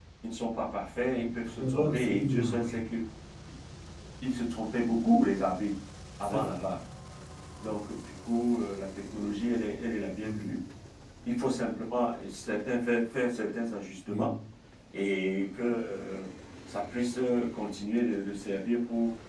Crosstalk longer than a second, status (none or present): present